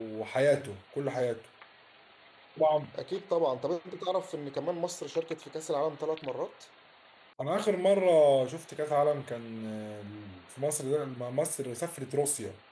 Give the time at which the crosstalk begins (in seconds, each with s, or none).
none